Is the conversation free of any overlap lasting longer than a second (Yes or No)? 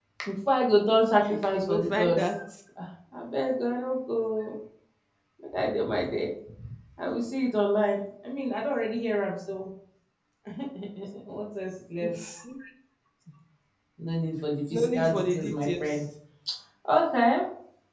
No